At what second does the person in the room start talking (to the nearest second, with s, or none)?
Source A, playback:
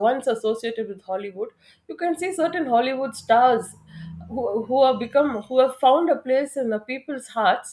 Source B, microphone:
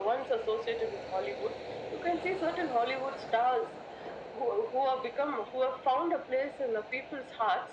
none